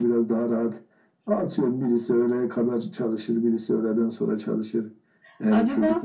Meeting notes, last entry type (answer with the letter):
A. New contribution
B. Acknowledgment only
B